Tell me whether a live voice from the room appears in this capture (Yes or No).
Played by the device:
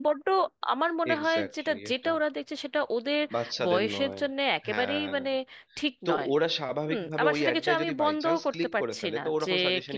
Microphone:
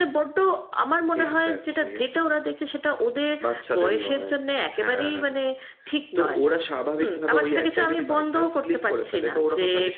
No